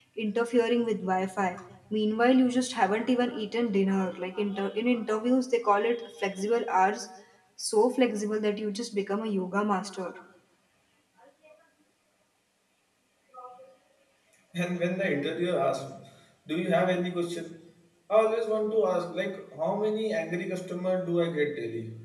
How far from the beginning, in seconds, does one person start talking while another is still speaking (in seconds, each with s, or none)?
none